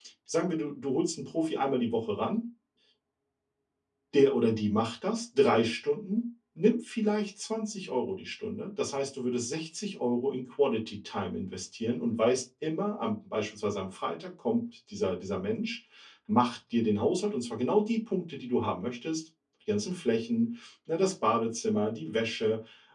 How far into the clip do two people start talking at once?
none

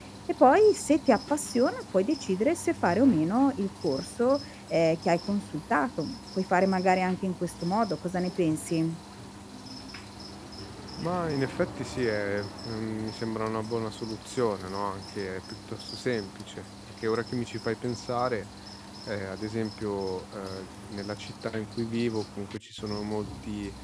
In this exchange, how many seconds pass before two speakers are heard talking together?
none

